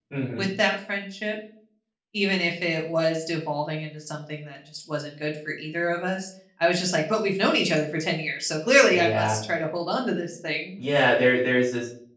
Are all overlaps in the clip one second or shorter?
Yes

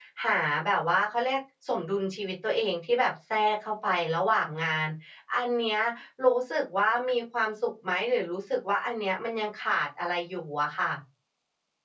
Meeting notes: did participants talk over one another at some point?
No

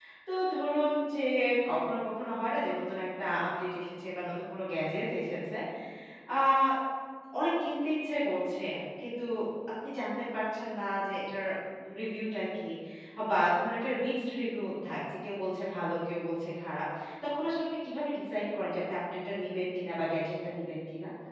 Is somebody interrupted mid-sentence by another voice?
No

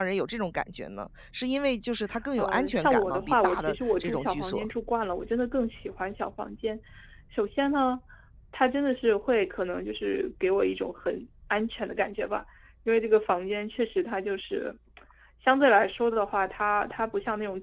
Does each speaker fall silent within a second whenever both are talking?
No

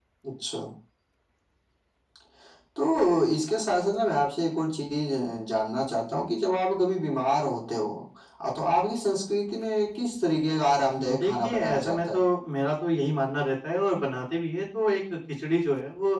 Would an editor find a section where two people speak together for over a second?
Yes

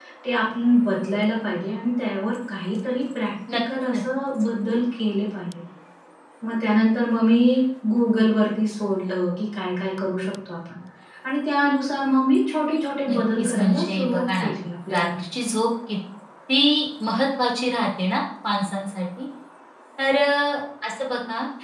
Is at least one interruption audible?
Yes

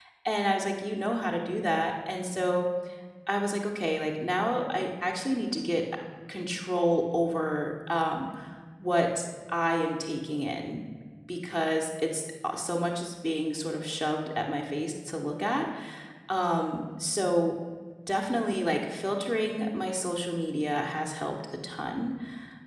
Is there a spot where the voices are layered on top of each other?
No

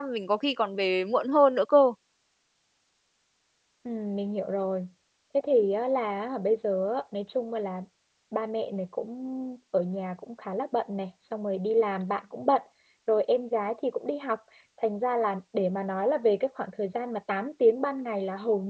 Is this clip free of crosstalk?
Yes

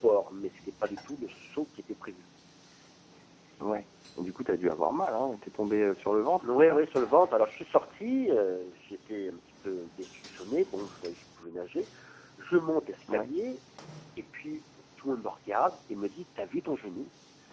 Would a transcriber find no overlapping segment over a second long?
Yes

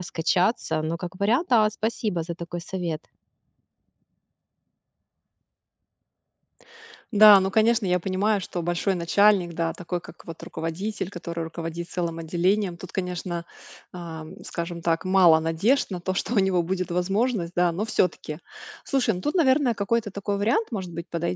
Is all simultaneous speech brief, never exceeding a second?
Yes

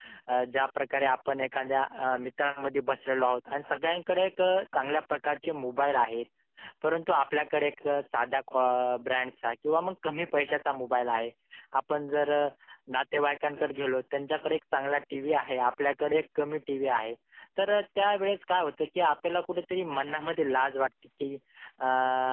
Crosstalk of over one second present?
No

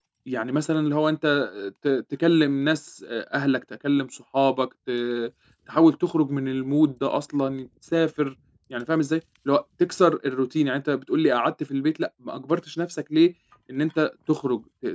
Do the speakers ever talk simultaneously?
No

